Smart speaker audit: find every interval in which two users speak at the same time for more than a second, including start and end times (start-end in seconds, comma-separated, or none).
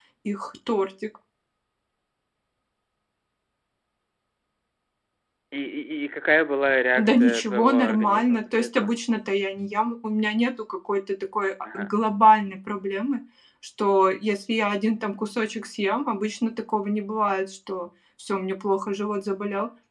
7.0-8.9